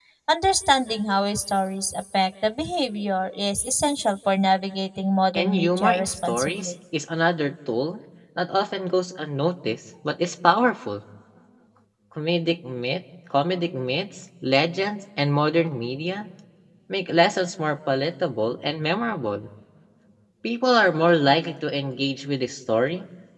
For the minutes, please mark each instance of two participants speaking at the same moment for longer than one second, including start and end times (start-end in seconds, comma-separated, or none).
5.3-6.8